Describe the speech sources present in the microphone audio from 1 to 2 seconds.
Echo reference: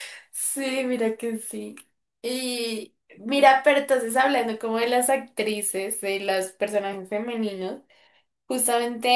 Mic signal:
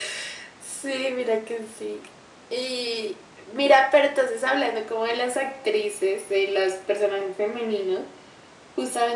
echo only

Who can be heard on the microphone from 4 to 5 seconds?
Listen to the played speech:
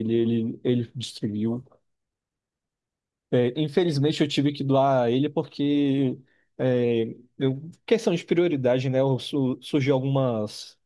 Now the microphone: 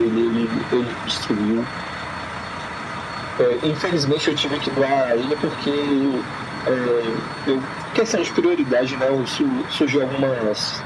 echo only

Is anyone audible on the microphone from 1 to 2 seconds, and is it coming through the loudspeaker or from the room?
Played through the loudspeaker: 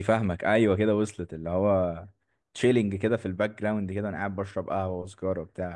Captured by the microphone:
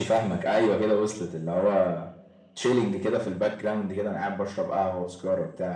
echo only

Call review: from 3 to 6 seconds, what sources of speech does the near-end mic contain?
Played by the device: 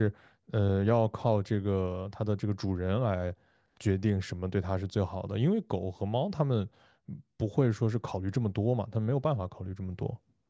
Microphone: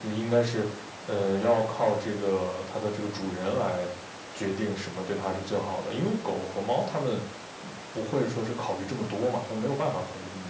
echo only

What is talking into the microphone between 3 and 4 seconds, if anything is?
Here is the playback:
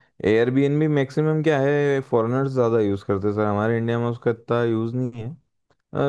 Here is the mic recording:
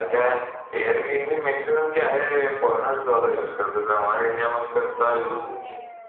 echo only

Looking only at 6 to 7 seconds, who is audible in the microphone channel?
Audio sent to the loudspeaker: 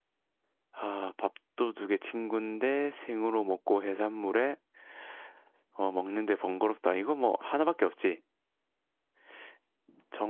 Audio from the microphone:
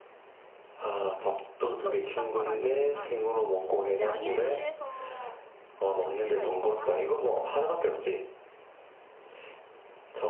both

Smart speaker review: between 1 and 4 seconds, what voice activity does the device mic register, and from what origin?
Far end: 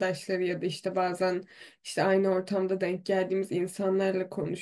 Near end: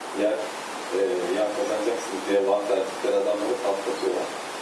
user only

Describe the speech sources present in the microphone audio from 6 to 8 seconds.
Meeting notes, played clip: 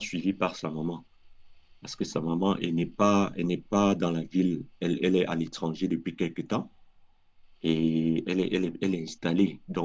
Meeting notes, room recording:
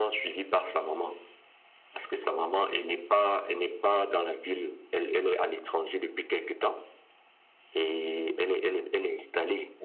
echo only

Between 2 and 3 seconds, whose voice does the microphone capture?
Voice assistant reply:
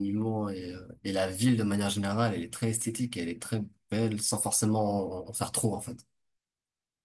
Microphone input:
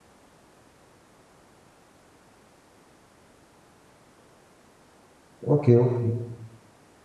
neither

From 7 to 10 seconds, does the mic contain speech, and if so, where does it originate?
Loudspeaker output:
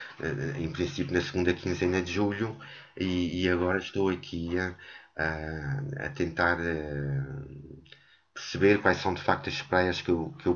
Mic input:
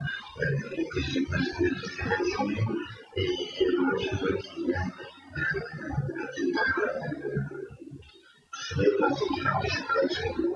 echo only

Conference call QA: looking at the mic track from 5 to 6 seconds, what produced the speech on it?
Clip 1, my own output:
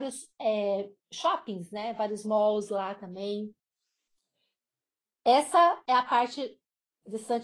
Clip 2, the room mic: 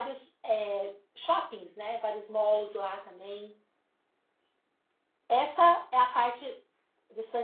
echo only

